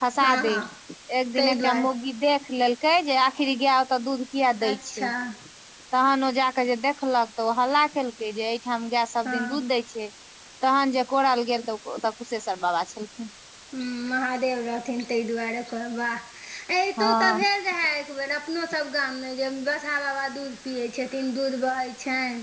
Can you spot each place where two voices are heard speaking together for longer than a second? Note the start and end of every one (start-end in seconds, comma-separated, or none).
none